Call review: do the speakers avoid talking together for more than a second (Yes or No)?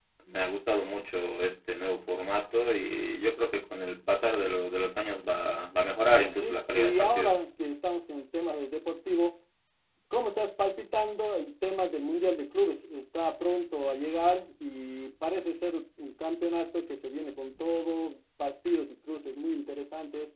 No